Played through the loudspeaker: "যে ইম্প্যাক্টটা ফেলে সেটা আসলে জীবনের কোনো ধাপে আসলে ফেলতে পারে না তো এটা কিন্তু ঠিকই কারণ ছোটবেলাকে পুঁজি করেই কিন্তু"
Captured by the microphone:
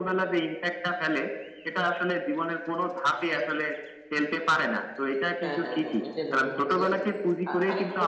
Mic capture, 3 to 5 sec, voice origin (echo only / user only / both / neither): echo only